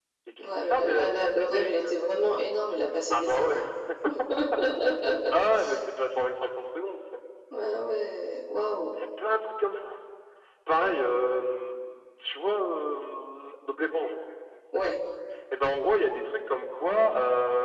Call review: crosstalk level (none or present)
present